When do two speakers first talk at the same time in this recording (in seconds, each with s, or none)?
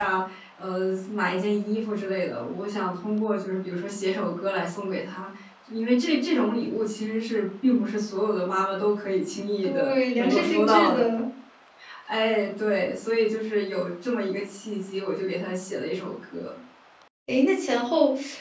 9.6 s